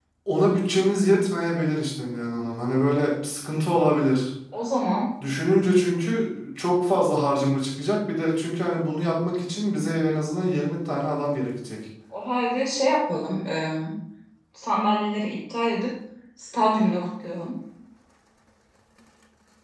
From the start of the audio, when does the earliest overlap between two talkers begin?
none

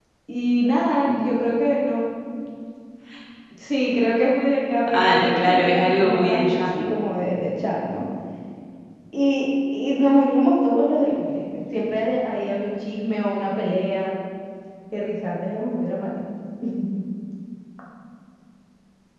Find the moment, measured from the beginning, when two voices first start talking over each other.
4.9 s

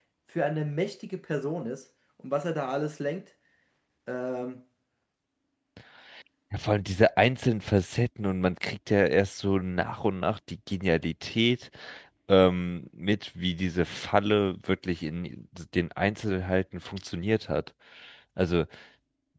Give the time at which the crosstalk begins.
none

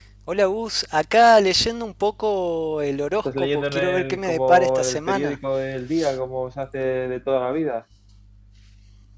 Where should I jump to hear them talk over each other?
3.2 s

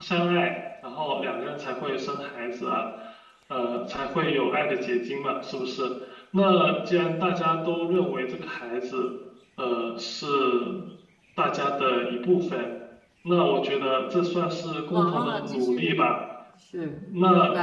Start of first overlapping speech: 14.9 s

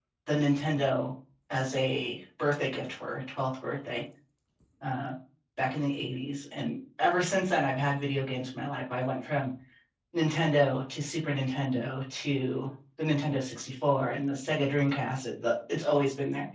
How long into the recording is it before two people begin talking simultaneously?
none

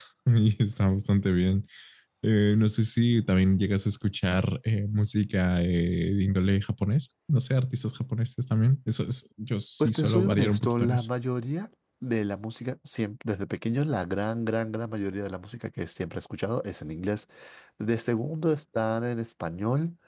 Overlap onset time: 9.8 s

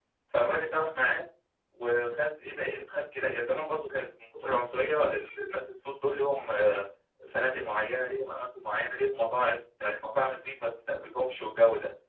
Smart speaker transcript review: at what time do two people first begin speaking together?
none

